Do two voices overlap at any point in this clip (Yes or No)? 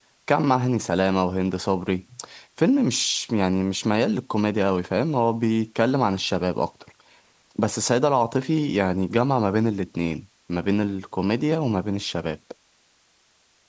No